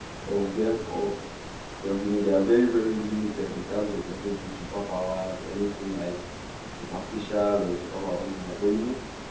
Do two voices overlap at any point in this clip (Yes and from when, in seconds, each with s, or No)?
No